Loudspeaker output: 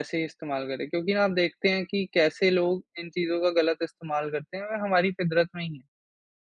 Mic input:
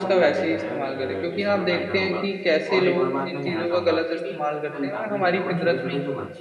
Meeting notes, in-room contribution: present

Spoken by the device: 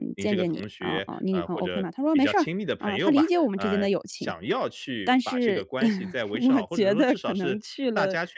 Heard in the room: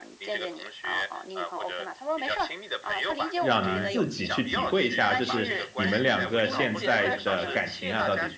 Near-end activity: present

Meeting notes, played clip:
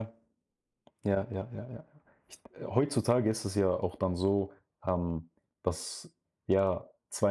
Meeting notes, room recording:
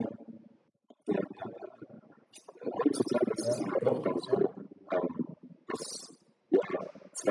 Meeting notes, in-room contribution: present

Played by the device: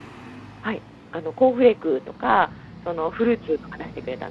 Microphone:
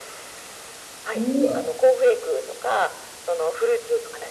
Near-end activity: present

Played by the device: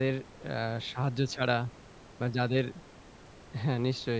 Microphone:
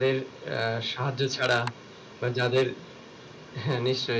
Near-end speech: none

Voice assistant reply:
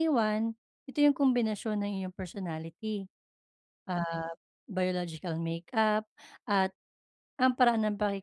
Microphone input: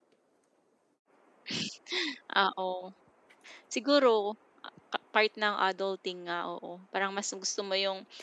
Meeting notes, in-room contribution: present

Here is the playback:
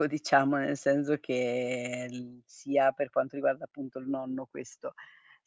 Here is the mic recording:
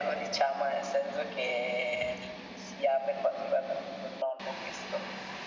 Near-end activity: none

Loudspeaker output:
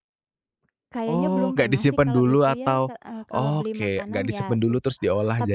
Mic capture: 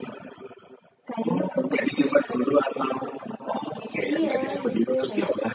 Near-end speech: present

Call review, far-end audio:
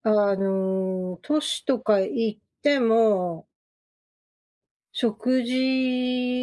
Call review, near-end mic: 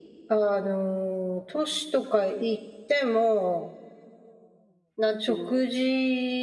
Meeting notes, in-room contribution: present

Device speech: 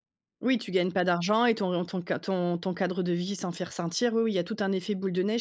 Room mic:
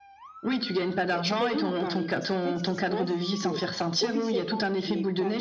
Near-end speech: present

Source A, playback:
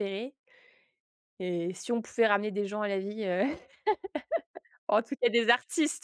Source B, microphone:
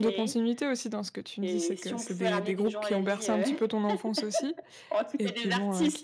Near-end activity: present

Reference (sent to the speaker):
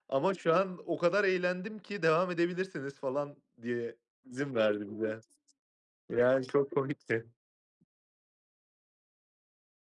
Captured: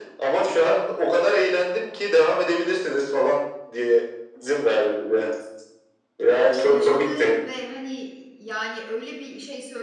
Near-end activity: present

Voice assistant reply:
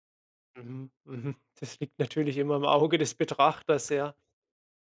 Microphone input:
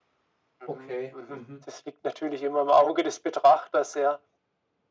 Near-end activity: present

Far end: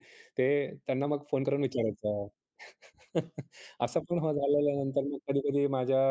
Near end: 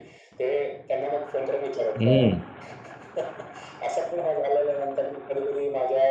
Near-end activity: present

